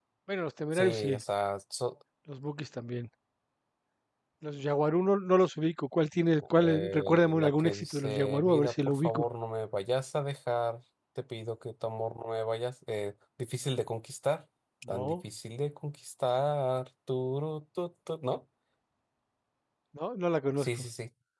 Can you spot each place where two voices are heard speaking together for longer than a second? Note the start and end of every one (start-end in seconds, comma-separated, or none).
6.6-9.2